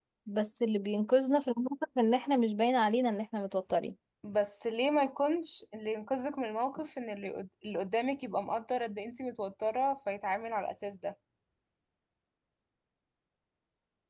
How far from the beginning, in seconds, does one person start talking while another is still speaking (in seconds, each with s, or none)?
none